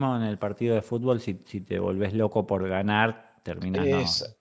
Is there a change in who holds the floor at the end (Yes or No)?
Yes